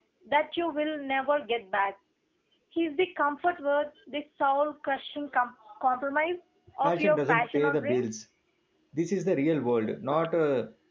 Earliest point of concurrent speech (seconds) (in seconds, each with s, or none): 6.8 s